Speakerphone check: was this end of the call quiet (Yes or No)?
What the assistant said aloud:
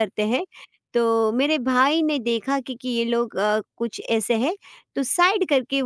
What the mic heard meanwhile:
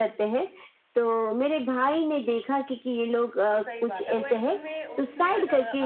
No